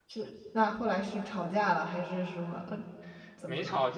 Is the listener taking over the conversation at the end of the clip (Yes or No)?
Yes